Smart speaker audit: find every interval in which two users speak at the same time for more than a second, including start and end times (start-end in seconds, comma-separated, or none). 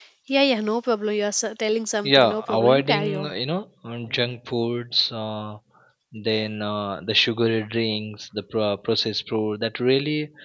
2.0-3.3